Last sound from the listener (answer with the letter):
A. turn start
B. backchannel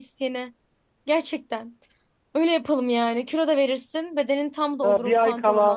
A